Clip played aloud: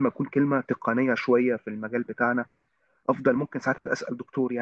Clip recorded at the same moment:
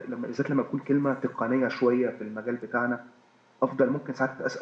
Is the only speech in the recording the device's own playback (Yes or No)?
Yes